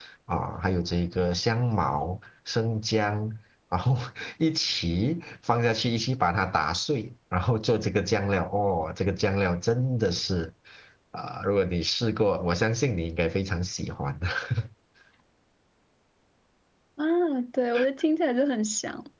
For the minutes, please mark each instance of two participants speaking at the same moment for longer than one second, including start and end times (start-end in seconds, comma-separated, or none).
none